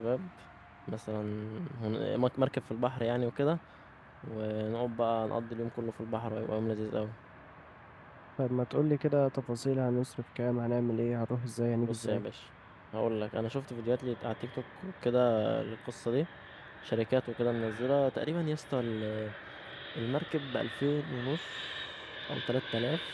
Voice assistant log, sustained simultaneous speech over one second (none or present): none